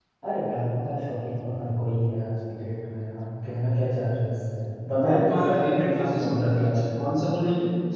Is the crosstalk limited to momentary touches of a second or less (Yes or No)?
No